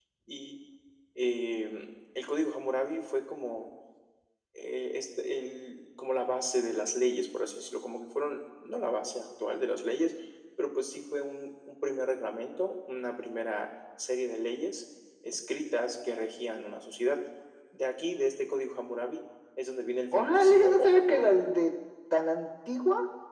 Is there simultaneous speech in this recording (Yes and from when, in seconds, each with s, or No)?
Yes, from 20.1 s